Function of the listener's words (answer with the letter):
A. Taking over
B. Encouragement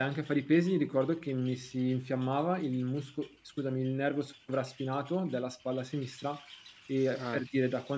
B